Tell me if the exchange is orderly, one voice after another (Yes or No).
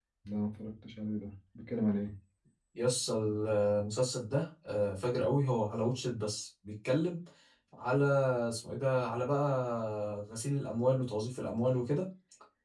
Yes